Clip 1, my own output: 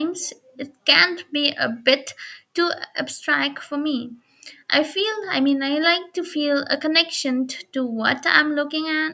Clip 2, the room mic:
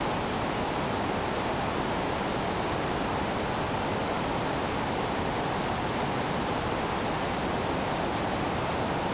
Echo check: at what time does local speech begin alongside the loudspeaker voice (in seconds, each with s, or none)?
none